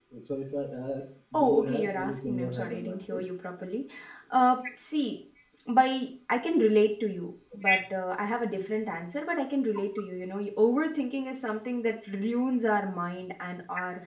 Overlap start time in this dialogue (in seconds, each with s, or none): 1.3 s